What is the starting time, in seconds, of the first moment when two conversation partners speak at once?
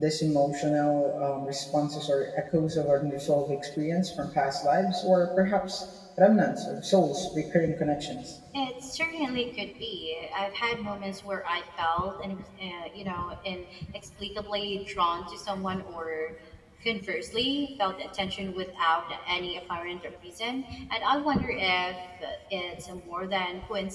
none

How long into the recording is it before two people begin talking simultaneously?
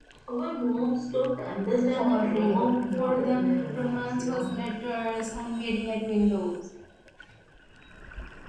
2 s

